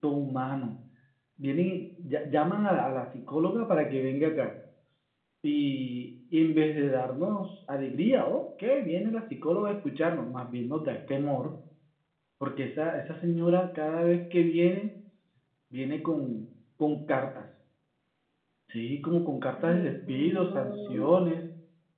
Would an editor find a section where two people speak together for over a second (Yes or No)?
Yes